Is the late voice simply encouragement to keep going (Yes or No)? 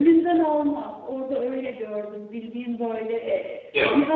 Yes